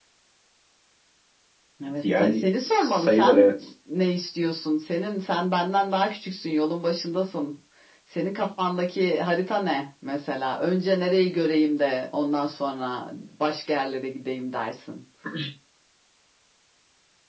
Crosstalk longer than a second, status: present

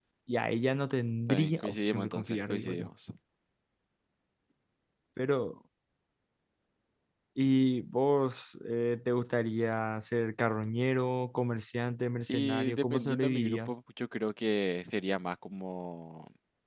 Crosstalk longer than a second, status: present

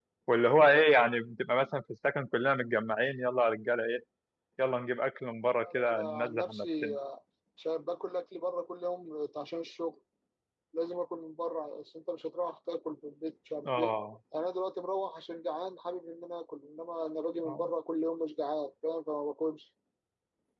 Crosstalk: present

